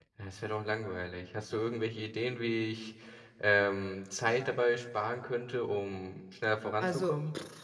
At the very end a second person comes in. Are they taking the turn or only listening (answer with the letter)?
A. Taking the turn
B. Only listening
A